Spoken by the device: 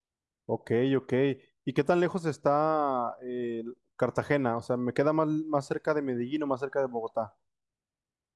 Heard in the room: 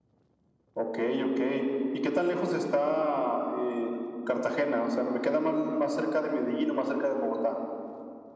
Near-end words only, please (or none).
none